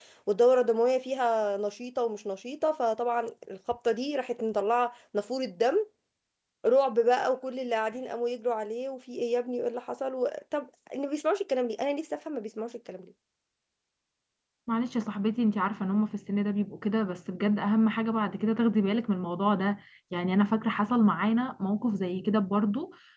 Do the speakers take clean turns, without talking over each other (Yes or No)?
Yes